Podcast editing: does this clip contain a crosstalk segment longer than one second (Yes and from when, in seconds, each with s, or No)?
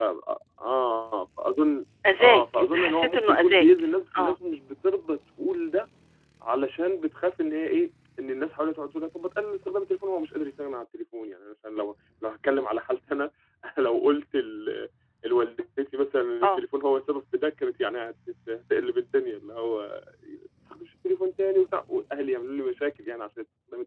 Yes, from 2.0 s